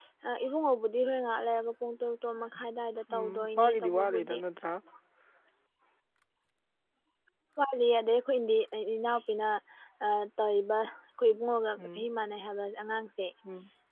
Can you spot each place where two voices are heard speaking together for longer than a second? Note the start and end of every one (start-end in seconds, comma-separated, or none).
3.1-4.4